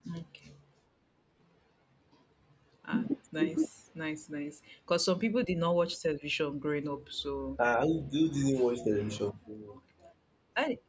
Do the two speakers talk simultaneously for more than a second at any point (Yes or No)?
No